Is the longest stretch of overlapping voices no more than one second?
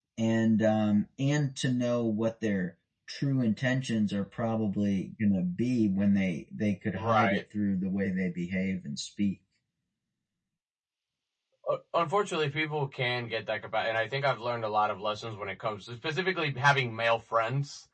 Yes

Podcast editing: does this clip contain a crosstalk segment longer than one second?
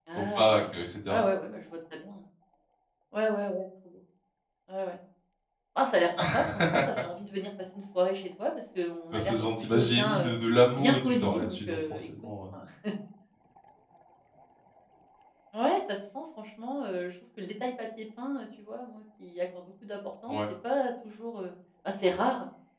Yes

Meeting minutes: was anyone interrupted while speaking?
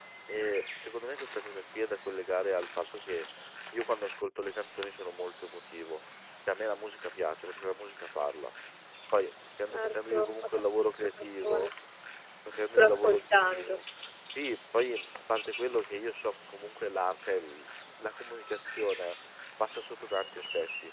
Yes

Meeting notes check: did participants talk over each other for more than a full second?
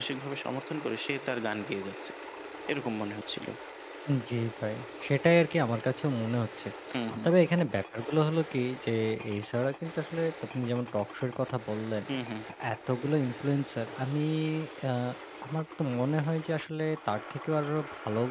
No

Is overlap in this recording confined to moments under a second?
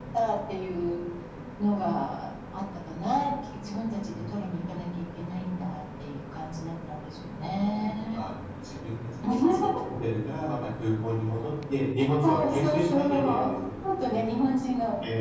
No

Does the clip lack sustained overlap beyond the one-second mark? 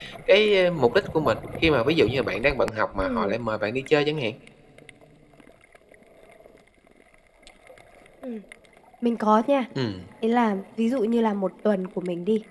Yes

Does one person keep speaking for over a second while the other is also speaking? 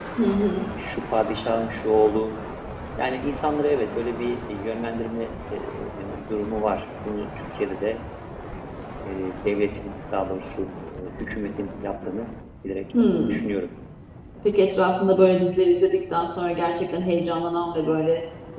No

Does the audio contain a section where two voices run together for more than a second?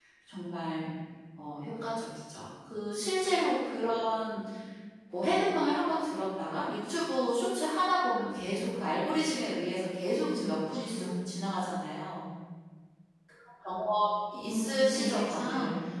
Yes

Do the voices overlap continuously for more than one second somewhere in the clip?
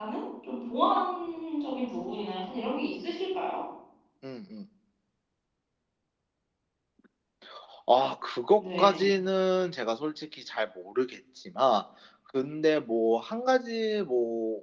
No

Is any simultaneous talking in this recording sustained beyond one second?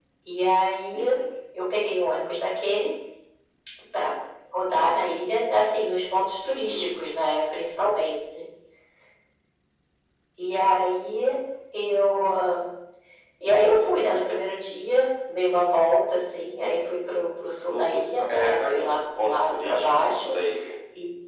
Yes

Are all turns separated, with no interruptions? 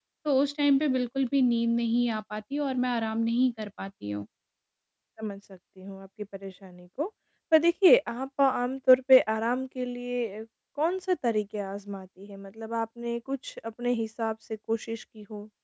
Yes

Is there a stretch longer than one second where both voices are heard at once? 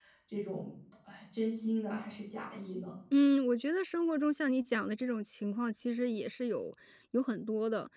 No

